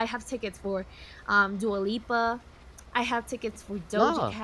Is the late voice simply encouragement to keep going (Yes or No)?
Yes